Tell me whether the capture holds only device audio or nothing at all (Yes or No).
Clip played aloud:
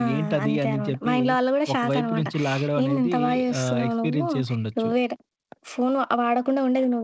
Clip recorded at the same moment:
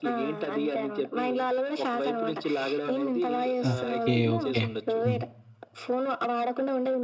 No